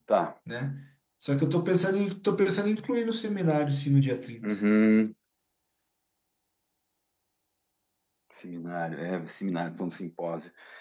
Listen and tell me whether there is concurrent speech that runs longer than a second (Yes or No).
No